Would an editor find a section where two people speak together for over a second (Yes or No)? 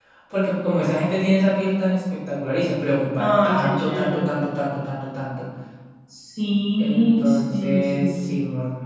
Yes